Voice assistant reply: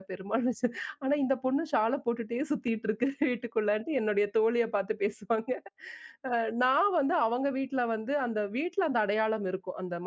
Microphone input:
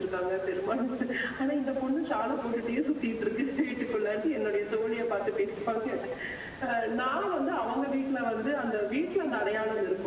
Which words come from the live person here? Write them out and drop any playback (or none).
none